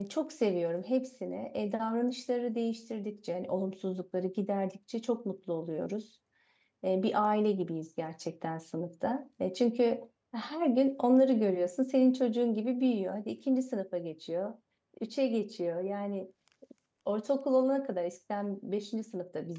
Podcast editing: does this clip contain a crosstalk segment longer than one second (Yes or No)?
No